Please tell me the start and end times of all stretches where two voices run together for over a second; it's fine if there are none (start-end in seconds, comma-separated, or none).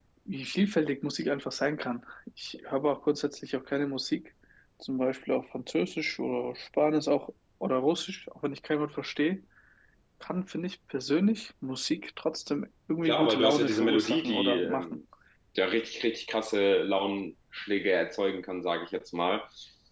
13.1-15.0